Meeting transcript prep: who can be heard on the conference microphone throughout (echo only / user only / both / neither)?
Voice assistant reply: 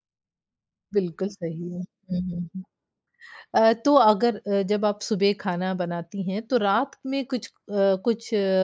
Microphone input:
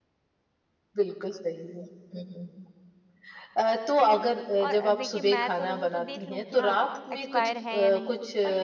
both